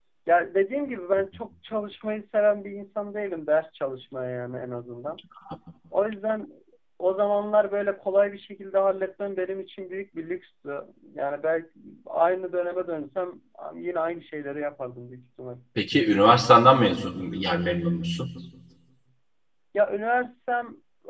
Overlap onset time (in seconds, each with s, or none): none